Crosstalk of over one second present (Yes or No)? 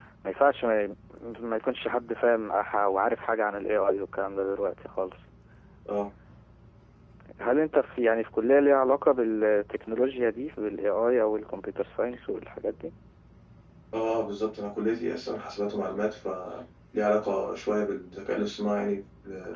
No